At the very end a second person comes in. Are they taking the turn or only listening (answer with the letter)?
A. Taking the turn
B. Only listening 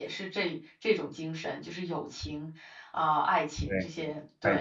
A